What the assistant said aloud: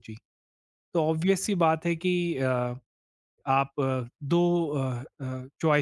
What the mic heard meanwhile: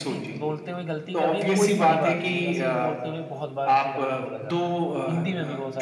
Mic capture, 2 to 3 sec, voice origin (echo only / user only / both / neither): both